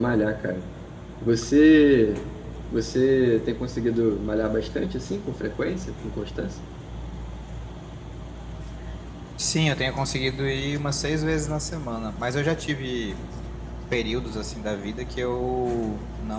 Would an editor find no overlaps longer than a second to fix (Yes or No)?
Yes